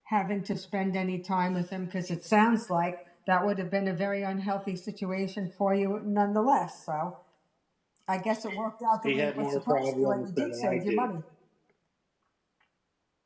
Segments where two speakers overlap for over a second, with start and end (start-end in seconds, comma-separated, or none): 9.0-11.1